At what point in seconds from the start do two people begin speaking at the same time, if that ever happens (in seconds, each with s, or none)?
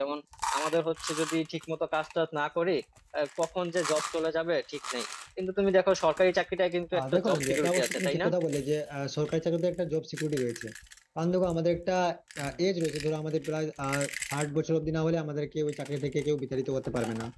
6.9 s